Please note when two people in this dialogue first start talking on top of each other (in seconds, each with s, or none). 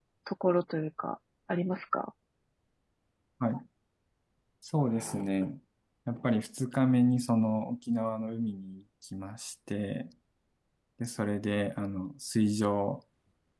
none